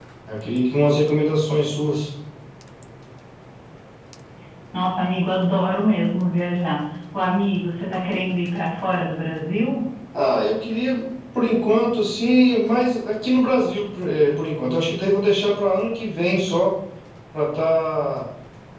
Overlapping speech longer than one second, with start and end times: none

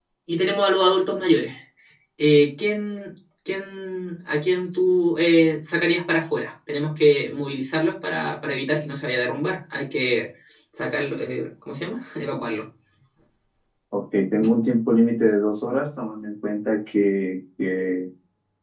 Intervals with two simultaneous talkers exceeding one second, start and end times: none

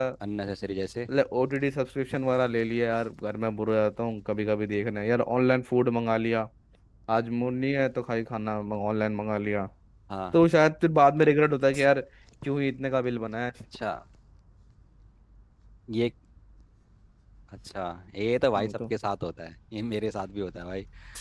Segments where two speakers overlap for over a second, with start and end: none

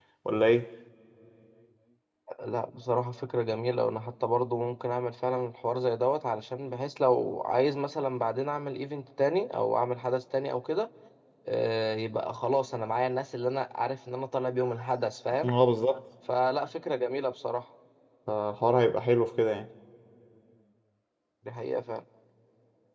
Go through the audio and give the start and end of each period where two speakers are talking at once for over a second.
none

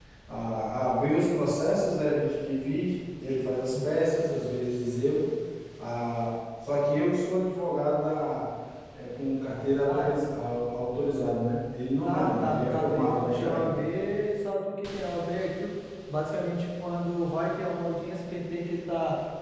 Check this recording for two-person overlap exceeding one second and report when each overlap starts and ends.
12.1-13.7

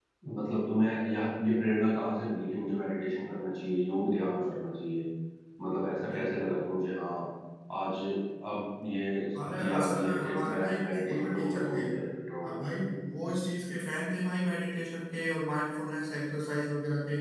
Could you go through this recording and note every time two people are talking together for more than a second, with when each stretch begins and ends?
9.6-11.8

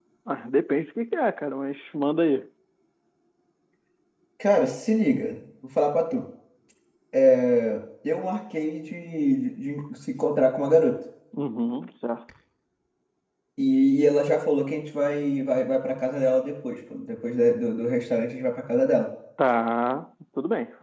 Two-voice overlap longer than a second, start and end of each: none

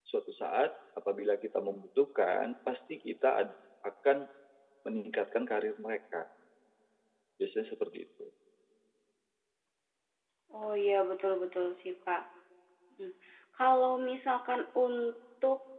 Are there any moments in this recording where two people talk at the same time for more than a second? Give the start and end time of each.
none

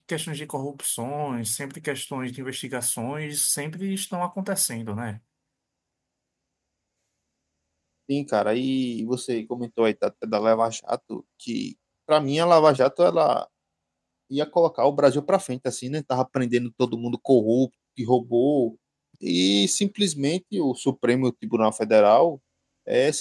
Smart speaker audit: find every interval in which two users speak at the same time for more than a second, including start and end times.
none

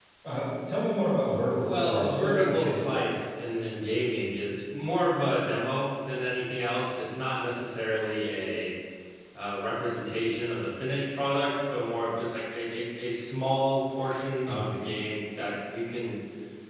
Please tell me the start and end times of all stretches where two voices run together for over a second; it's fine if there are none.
1.7-3.2

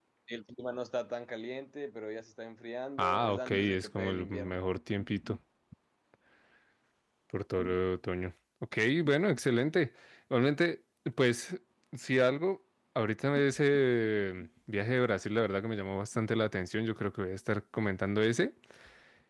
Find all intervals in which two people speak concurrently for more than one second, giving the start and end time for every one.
3.0-4.6

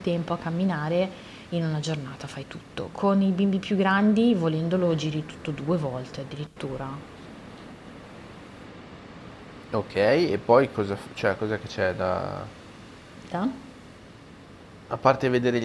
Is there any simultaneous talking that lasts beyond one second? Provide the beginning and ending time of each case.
none

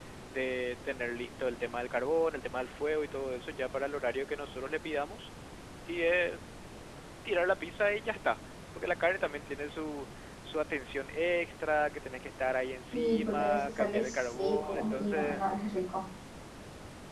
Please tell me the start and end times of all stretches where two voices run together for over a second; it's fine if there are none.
12.9-15.4

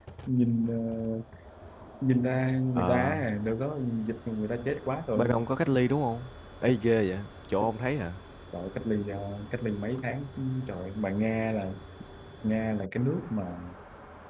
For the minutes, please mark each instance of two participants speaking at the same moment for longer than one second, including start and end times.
none

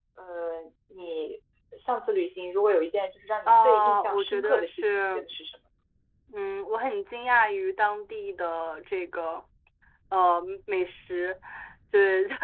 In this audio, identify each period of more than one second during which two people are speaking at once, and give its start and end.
3.5-5.2

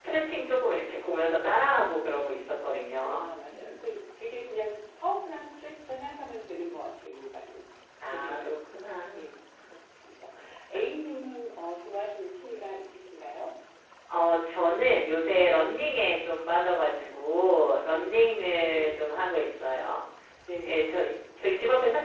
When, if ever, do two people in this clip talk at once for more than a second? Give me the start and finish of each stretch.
none

